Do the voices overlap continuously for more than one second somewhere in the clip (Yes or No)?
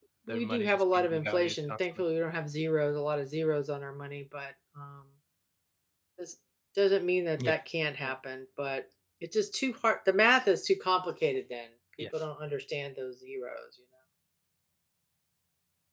Yes